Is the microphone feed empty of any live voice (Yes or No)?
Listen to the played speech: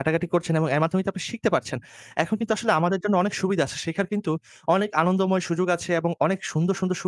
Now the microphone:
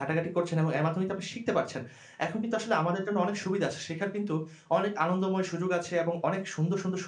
Yes